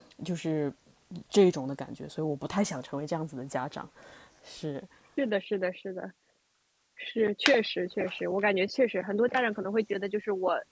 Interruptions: none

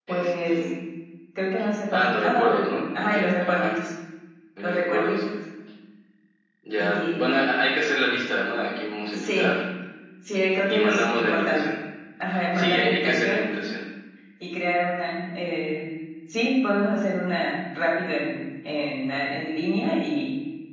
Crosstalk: present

